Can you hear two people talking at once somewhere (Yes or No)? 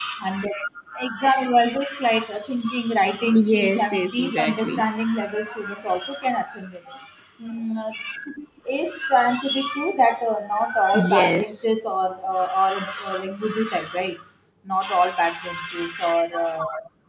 Yes